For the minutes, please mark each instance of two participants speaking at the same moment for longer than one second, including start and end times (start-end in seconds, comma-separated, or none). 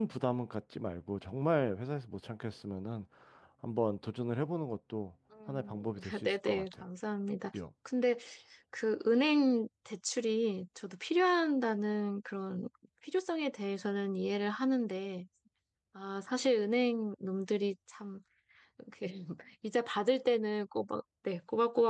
5.5-6.8